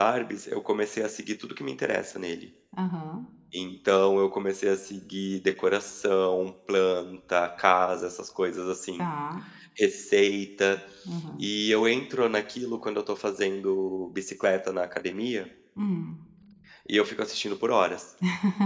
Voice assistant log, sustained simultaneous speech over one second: none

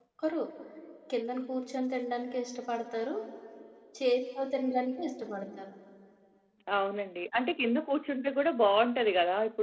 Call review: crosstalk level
none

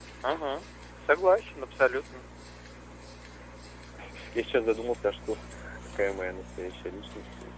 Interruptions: none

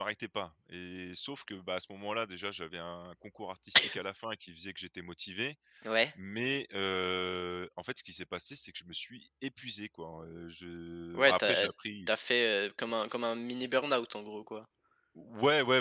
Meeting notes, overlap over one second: none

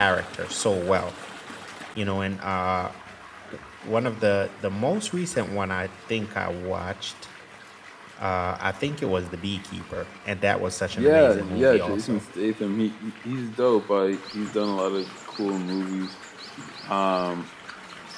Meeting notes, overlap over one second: present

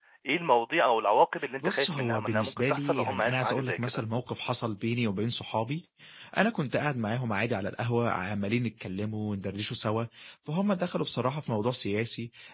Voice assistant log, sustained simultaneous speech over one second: present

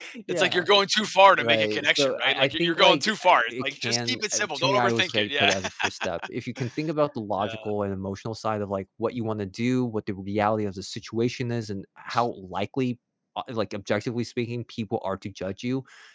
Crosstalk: present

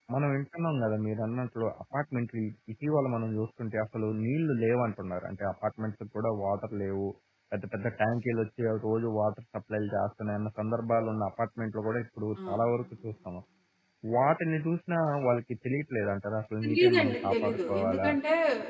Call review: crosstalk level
present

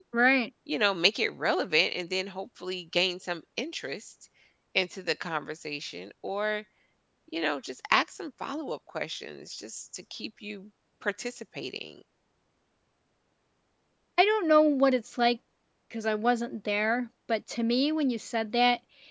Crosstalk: none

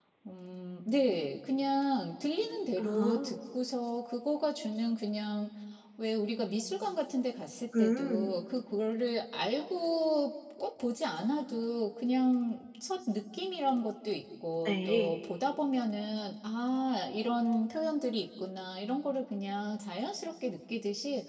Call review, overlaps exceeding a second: none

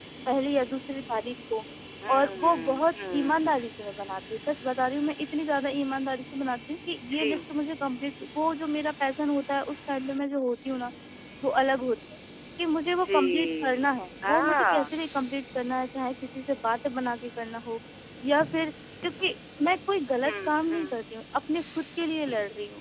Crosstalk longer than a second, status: present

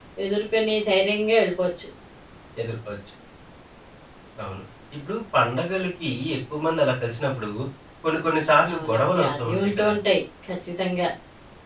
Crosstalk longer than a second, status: present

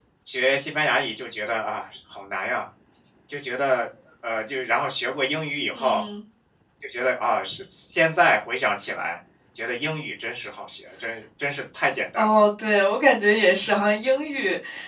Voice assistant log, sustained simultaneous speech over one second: none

